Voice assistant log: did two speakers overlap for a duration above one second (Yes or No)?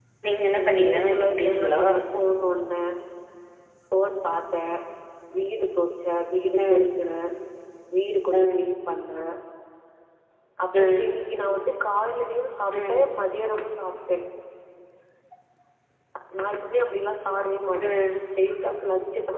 Yes